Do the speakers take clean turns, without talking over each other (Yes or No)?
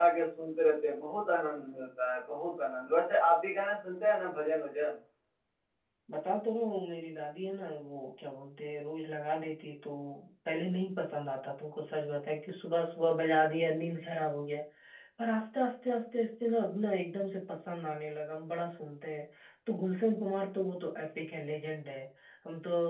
Yes